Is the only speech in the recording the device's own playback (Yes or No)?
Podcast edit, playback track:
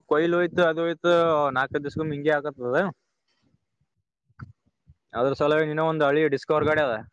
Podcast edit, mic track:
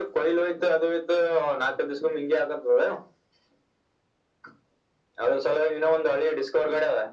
Yes